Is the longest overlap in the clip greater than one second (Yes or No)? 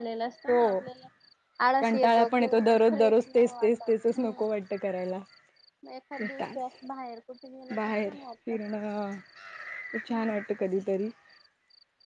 Yes